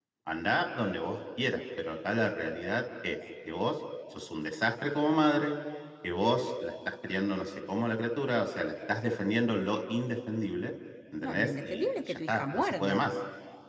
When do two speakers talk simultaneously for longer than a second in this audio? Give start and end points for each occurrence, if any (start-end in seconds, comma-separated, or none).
11.2-13.1